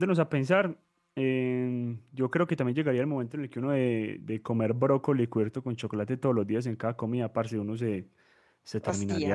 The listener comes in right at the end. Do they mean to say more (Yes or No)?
No